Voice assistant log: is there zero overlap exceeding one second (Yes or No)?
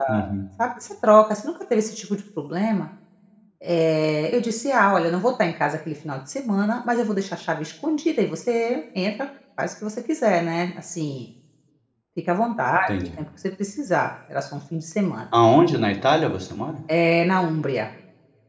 Yes